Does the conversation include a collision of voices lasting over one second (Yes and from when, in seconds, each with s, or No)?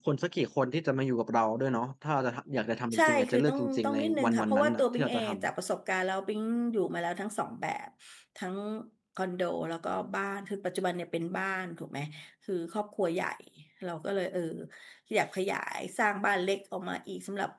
Yes, from 2.9 s